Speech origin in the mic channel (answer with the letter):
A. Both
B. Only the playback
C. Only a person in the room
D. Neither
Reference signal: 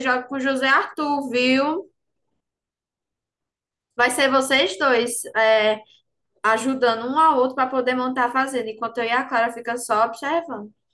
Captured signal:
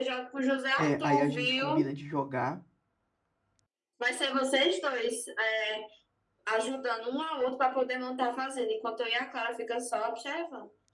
A